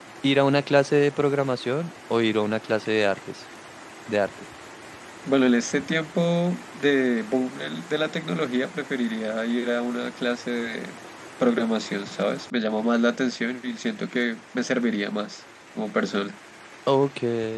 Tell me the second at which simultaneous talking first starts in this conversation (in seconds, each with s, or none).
none